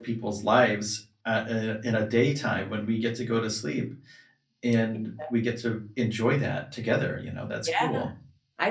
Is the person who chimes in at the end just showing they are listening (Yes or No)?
No